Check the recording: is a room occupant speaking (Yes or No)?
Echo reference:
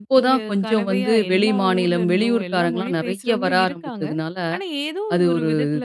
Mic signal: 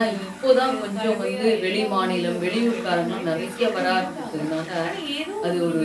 No